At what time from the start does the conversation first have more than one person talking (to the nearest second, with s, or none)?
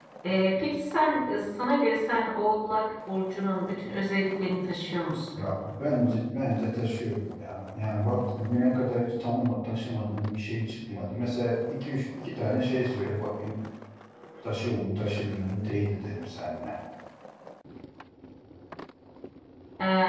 none